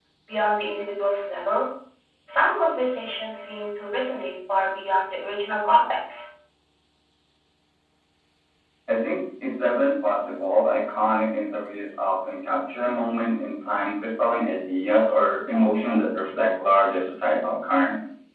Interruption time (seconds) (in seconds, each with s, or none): none